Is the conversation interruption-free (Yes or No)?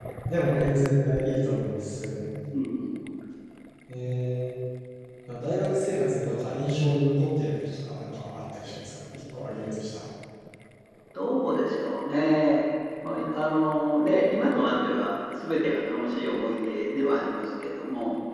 Yes